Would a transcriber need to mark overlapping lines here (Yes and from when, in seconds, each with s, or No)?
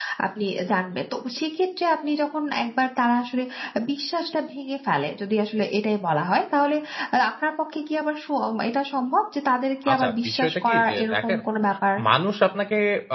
Yes, from 9.9 s